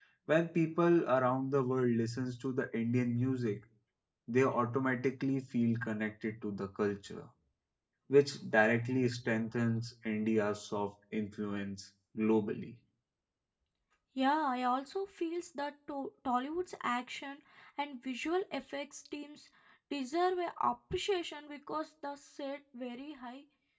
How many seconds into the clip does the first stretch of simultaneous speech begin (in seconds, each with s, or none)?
none